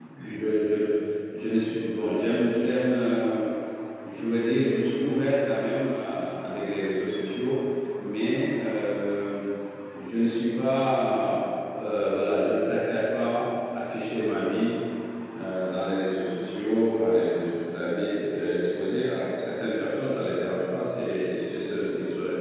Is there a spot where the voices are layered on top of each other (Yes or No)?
No